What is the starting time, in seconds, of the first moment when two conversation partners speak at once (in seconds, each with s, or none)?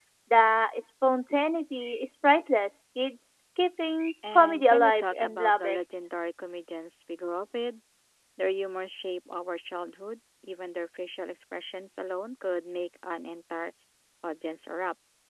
4.2 s